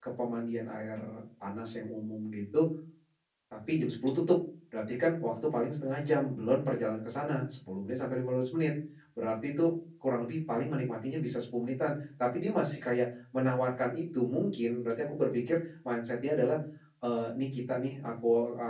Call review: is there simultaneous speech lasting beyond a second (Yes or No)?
No